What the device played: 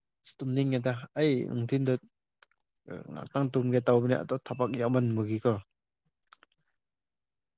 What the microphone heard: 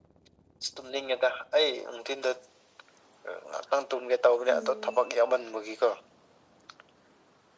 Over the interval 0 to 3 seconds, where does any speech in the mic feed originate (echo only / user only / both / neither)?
echo only